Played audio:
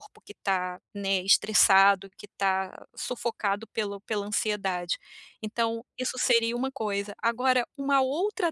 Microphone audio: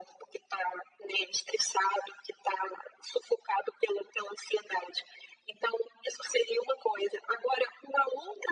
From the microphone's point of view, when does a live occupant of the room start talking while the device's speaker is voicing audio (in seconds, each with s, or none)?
none